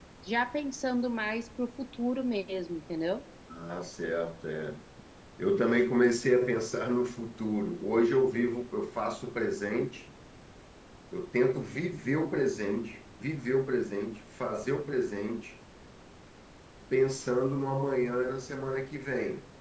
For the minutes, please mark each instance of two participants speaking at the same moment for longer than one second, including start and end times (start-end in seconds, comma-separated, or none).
none